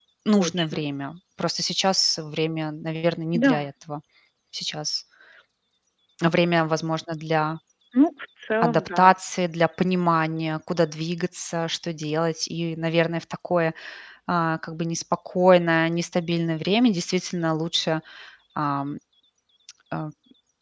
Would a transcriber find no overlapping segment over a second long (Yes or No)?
Yes